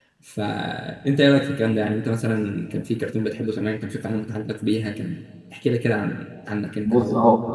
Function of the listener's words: taking over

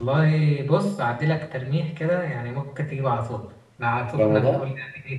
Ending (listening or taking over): listening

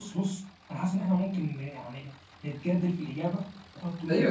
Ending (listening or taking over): taking over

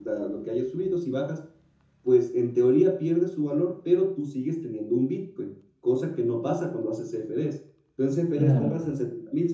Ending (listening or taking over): listening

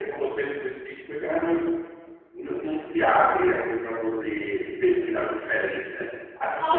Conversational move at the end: taking over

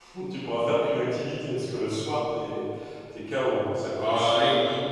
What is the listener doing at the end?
taking over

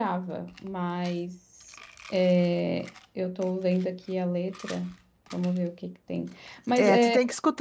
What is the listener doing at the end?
taking over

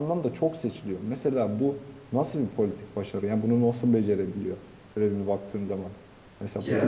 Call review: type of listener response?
listening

